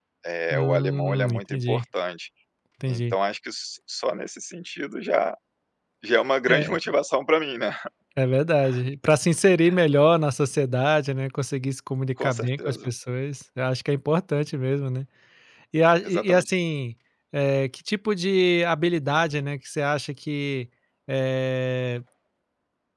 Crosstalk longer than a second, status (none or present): present